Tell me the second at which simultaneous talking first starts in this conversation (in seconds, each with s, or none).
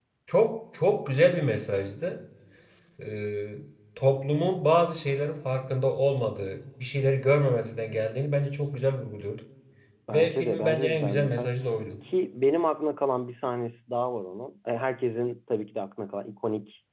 10.1 s